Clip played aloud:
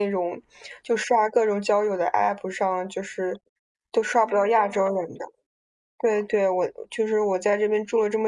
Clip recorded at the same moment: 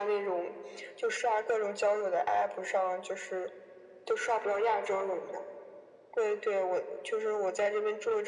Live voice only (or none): none